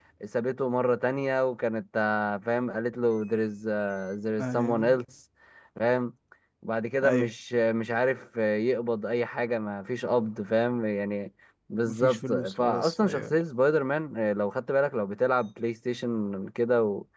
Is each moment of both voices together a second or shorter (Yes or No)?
No